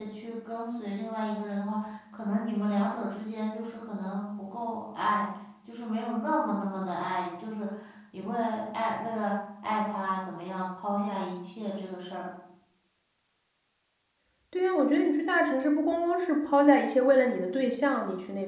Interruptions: none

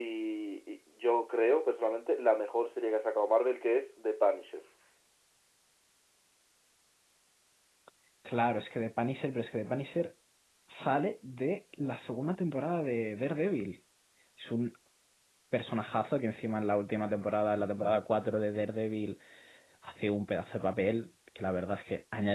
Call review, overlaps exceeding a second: none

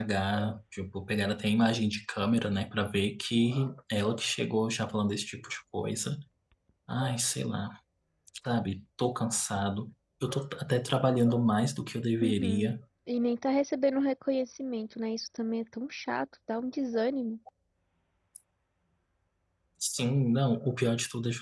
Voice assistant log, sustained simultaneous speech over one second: none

